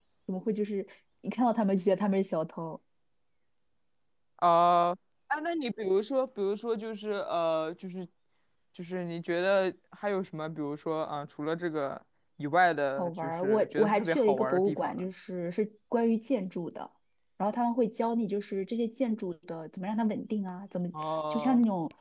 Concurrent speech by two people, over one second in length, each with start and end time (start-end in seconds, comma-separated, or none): 13.0-15.1